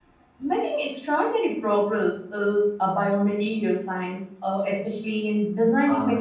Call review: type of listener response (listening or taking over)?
taking over